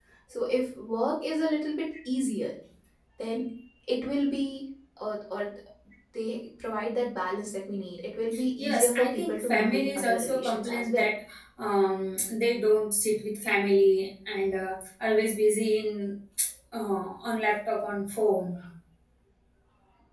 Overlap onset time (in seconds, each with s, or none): 8.6 s